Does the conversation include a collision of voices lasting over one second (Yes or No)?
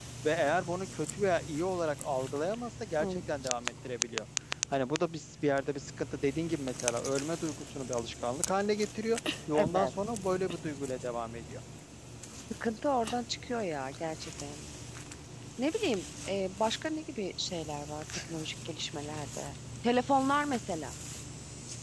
No